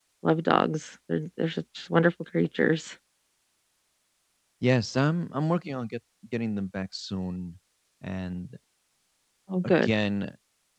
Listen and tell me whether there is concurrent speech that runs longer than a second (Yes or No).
No